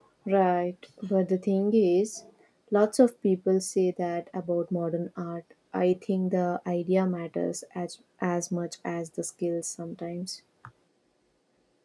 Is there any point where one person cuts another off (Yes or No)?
No